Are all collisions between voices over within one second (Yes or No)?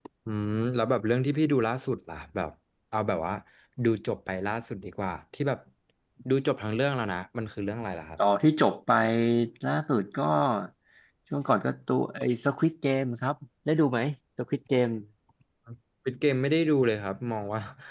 Yes